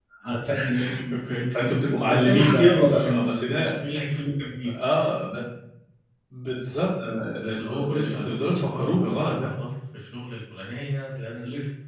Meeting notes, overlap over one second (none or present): present